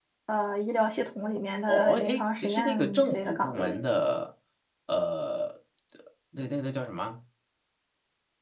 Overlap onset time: 1.7 s

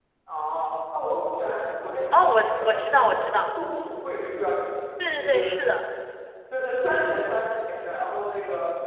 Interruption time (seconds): 2.1 s

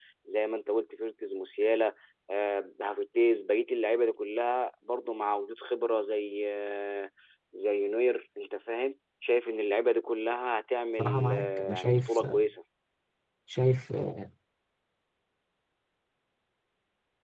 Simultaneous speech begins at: 11.0 s

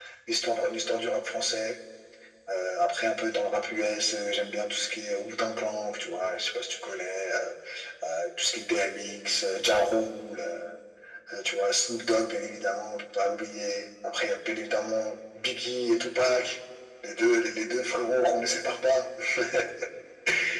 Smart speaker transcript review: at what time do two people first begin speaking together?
none

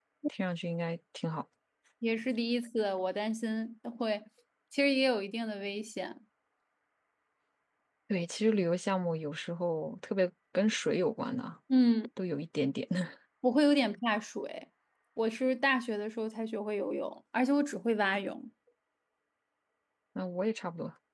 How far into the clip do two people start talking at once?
none

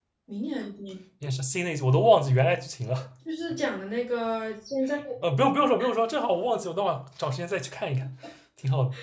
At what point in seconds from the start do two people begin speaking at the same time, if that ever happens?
none

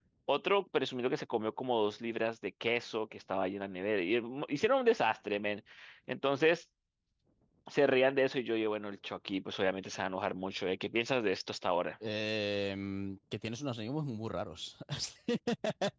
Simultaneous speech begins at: none

